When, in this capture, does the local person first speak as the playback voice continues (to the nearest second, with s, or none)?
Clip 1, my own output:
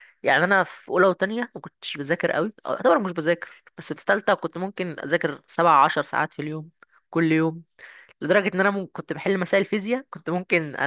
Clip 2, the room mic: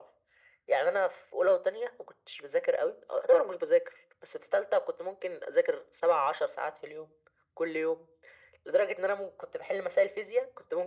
none